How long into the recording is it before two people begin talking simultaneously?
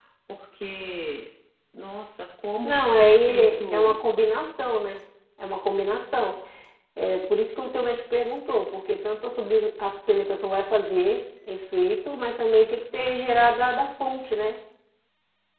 2.6 s

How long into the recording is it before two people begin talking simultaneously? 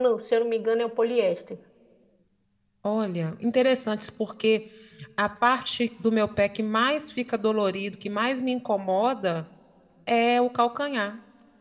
none

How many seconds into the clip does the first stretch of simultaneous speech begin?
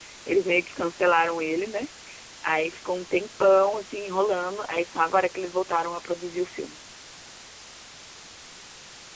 none

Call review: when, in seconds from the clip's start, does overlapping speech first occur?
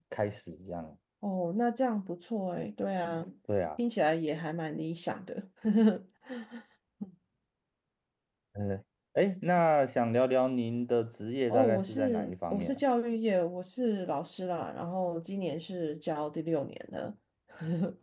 11.5 s

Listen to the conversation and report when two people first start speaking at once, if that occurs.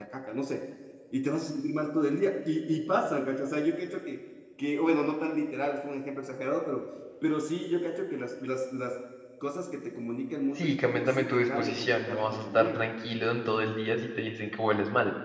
10.6 s

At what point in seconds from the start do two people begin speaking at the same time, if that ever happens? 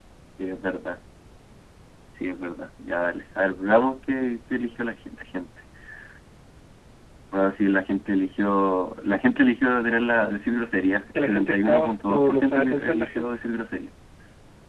11.2 s

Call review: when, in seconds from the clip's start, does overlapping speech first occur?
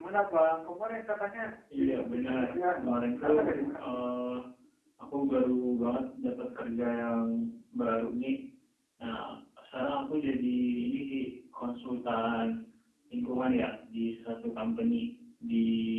1.8 s

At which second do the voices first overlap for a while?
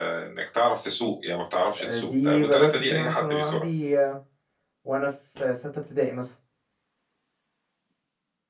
1.7 s

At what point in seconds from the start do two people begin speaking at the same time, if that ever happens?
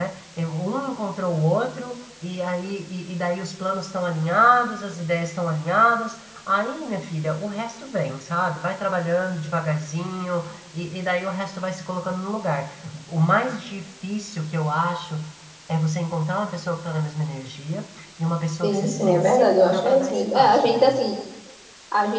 18.6 s

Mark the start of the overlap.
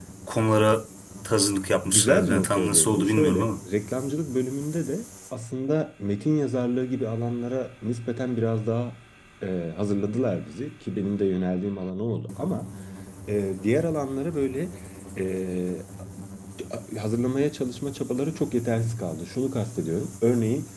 1.9 s

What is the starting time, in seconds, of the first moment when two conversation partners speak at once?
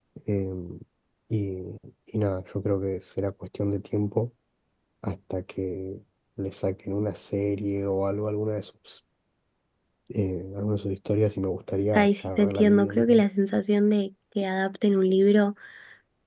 11.9 s

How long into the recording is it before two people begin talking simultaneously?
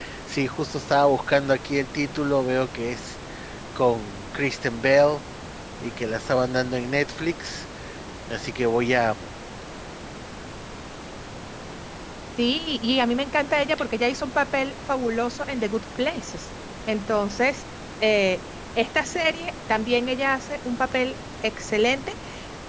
none

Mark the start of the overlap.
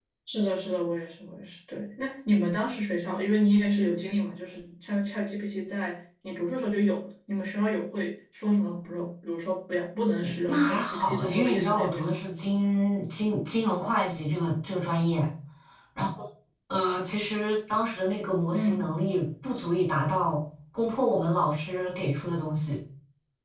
10.5 s

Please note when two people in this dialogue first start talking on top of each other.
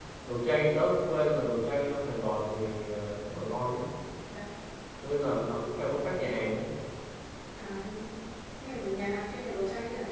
none

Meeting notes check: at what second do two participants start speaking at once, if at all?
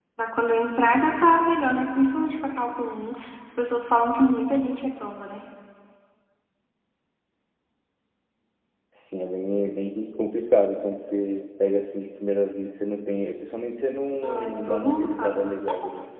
14.2 s

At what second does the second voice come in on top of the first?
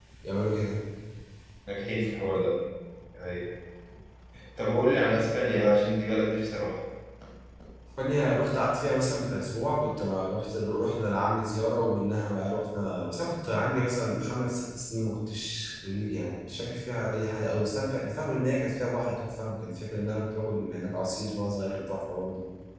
none

